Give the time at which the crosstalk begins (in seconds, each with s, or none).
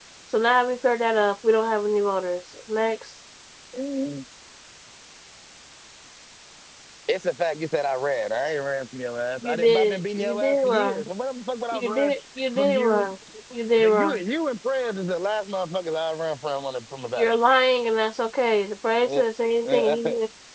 9.4 s